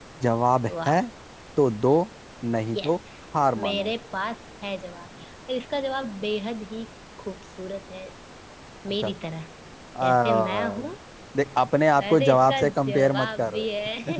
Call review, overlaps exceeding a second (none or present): present